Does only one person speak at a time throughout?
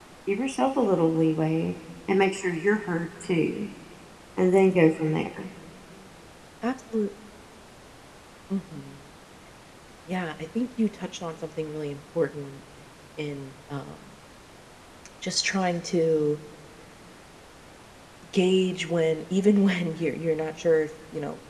Yes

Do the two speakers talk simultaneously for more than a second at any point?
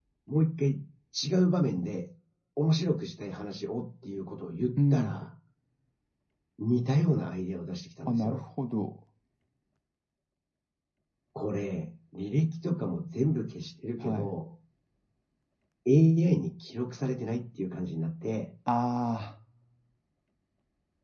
No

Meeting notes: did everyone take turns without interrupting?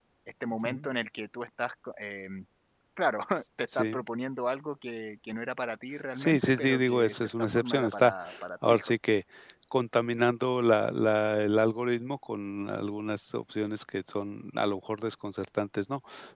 No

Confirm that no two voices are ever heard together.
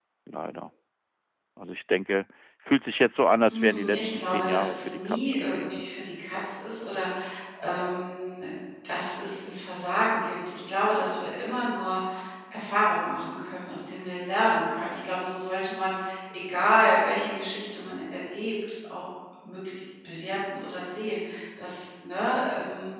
No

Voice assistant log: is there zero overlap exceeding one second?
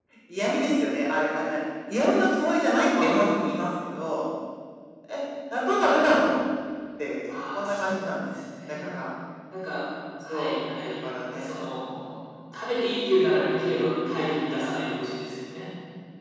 No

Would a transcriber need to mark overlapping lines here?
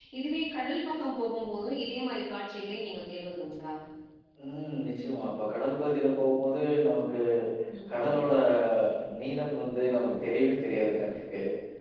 No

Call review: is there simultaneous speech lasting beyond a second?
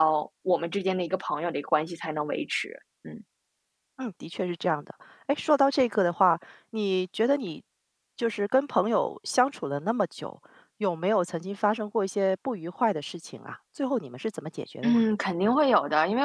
No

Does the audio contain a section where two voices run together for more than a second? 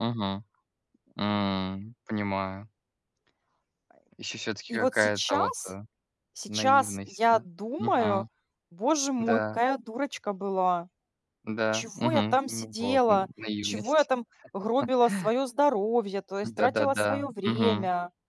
Yes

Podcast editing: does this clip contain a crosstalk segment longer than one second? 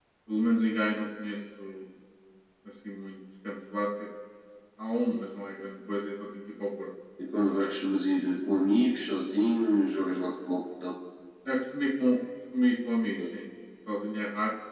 No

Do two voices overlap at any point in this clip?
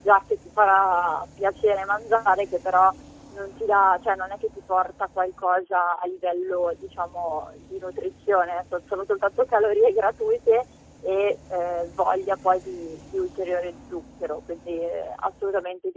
No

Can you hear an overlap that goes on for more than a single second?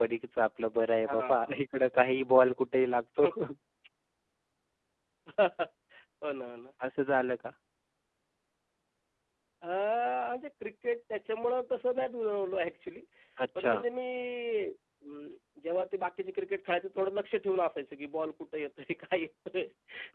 No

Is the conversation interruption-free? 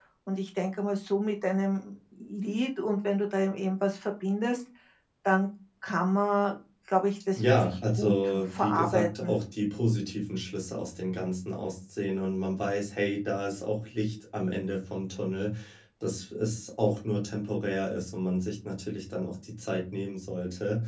No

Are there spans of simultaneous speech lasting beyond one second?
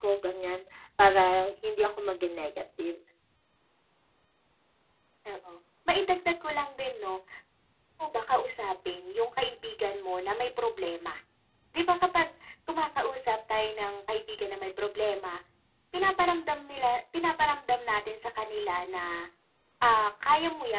No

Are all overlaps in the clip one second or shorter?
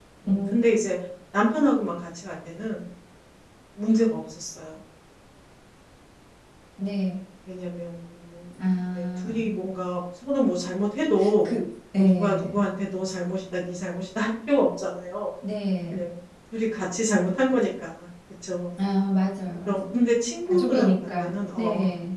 No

